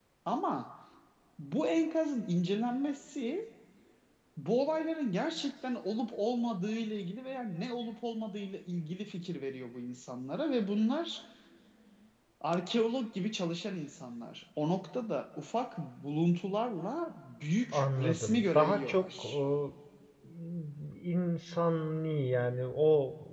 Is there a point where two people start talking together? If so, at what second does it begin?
17.7 s

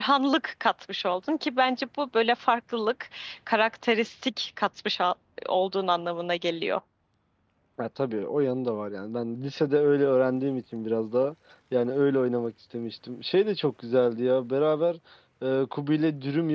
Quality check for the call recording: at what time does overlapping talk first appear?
none

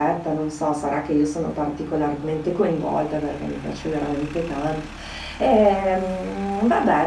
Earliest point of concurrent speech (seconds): none

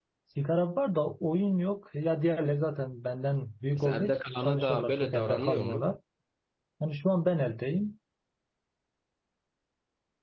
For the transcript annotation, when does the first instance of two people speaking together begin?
3.8 s

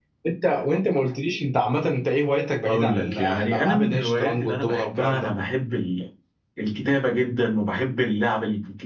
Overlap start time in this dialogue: 2.6 s

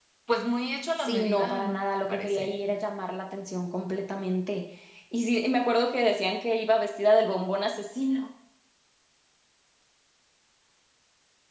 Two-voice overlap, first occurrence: 1.0 s

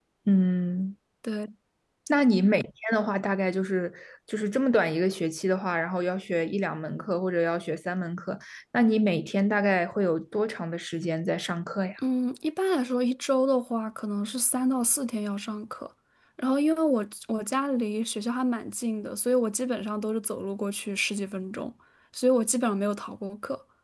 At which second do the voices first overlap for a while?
none

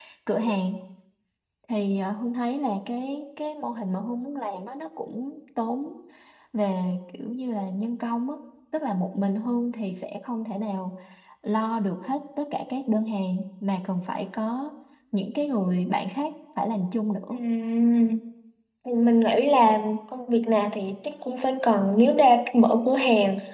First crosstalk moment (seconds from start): none

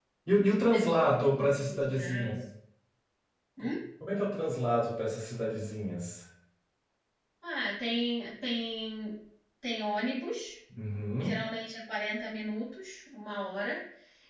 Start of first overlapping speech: 0.6 s

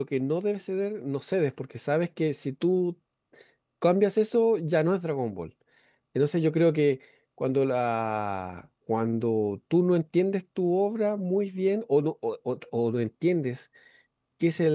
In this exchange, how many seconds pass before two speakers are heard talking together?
none

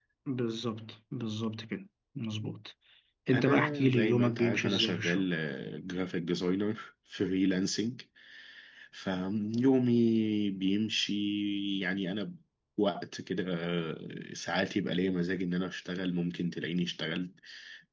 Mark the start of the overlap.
3.3 s

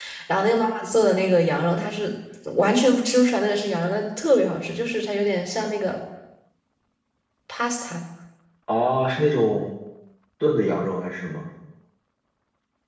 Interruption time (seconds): none

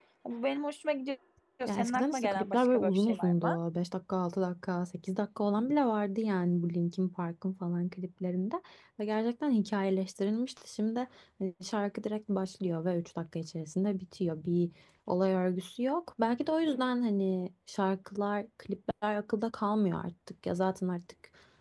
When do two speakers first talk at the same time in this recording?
1.7 s

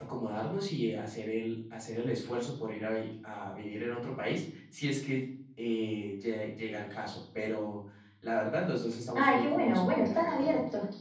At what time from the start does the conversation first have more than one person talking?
9.2 s

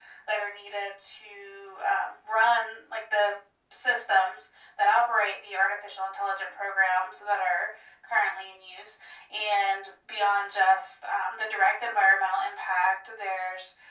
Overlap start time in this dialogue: none

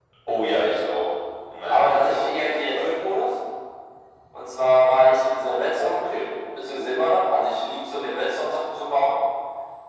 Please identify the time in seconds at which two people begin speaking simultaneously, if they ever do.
1.7 s

